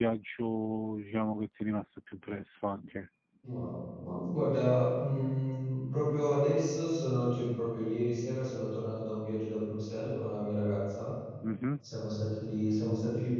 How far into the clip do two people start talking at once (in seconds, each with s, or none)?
none